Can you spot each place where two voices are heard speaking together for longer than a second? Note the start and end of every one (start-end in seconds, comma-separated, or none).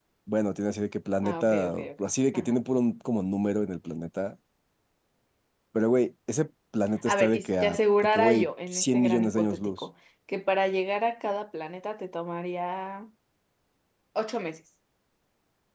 1.2-2.6, 7.1-9.8